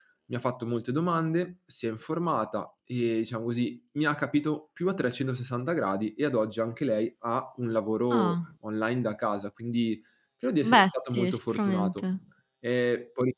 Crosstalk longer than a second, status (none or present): present